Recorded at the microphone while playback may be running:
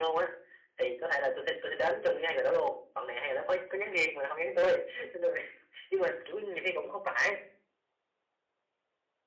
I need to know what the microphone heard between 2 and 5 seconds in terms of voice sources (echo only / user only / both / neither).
echo only